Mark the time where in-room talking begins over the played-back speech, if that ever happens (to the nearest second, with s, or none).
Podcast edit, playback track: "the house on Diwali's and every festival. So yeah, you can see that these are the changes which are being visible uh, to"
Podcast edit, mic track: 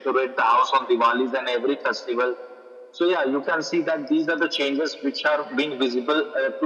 none